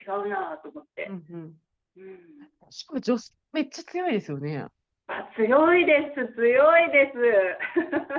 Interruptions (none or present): none